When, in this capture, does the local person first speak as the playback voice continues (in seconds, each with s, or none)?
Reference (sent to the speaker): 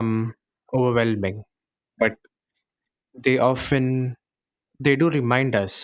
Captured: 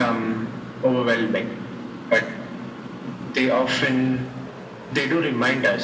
none